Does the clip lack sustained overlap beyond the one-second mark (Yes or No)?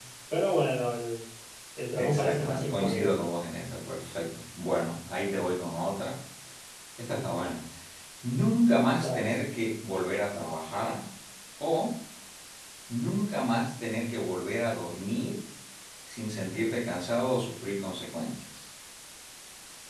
No